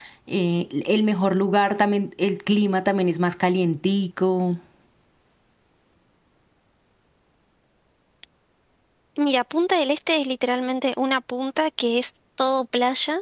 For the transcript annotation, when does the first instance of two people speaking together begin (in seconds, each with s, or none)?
none